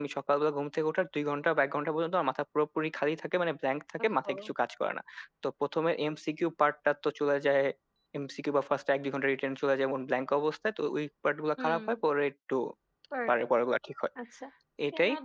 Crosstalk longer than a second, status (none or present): none